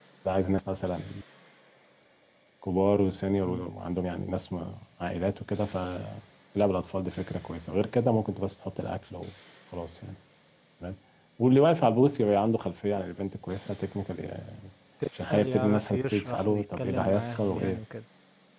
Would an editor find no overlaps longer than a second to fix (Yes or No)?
No